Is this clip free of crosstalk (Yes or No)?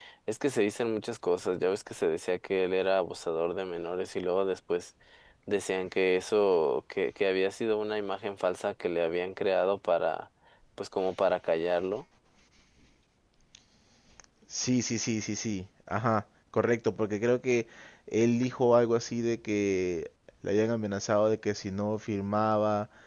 Yes